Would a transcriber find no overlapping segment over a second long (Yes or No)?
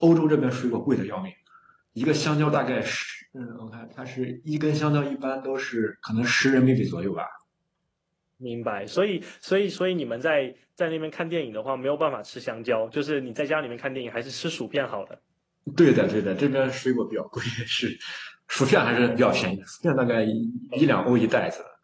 Yes